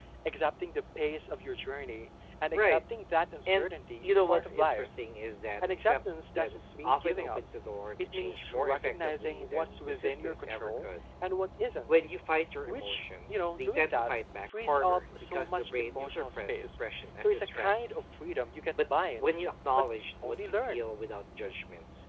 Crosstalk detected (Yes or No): Yes